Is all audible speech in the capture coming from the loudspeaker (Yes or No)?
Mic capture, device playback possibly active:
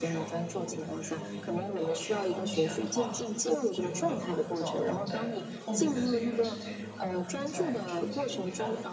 No